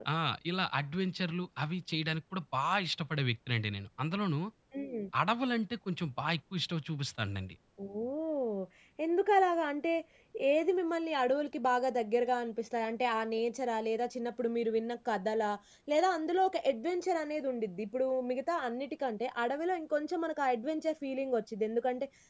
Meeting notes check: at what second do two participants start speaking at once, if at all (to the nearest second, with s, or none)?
none